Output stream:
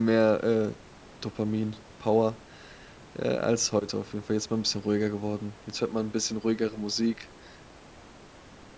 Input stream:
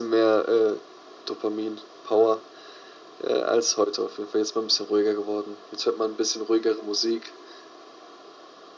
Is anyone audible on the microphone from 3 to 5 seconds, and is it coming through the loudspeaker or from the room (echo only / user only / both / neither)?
echo only